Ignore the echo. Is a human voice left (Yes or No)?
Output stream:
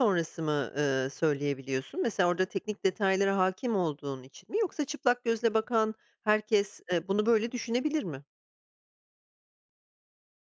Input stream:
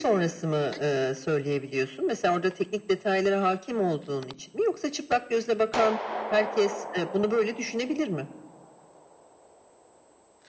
No